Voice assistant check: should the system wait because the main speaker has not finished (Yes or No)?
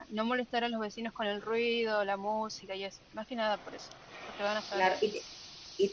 No